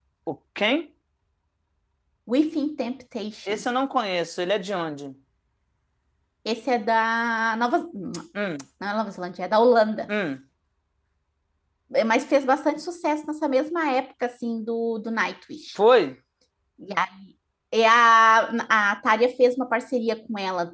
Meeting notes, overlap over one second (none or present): none